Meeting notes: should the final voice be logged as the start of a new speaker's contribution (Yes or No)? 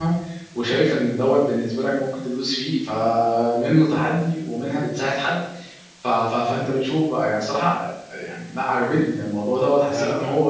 No